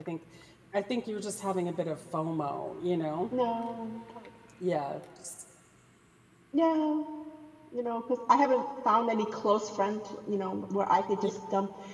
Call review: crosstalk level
none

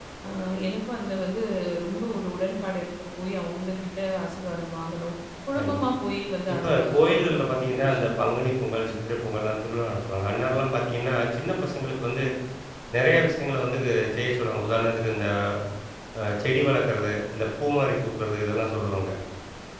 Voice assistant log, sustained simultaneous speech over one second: present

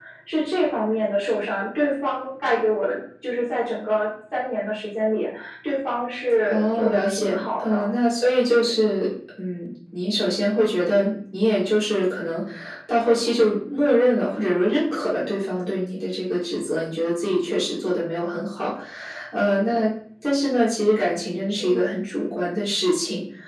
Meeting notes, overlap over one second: present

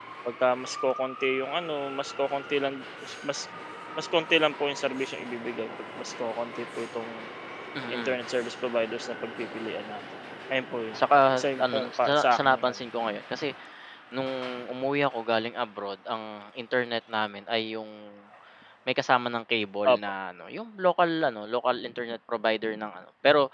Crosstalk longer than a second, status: present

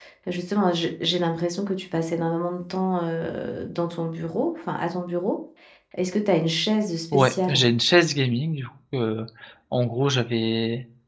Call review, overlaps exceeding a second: none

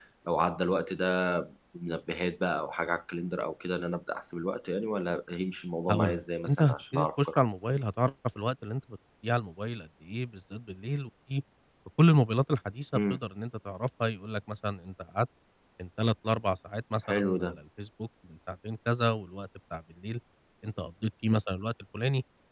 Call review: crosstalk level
present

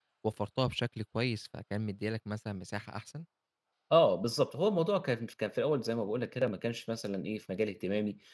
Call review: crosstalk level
none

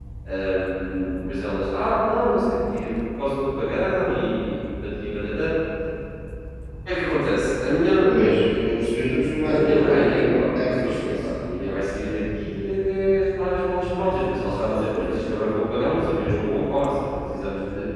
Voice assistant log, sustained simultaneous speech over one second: present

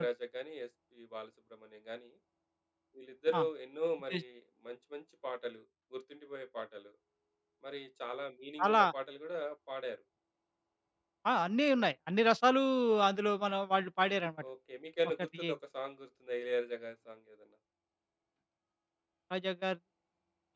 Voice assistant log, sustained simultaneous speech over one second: none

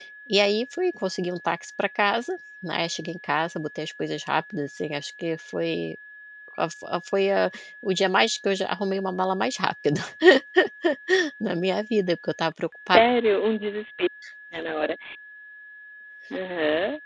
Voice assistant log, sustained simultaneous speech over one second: none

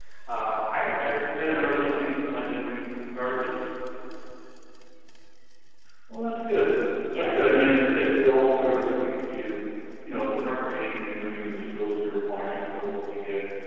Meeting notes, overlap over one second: present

